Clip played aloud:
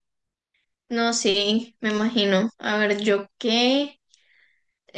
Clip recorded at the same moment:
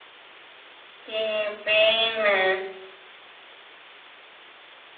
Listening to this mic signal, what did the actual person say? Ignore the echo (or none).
qué pena.